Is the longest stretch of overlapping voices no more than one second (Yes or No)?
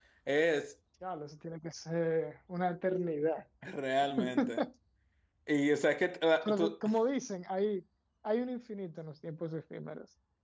Yes